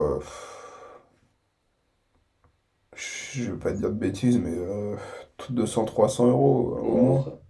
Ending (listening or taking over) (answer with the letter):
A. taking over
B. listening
A